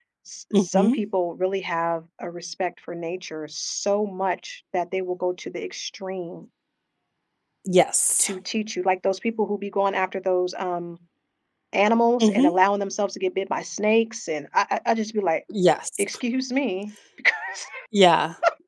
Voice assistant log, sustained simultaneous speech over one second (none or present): none